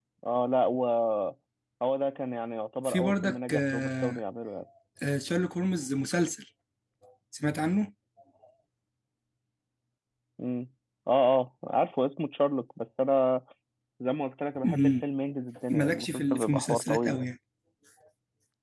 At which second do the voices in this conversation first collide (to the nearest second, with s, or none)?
3 s